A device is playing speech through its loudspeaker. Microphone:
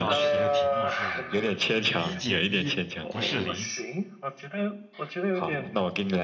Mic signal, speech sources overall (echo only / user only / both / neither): both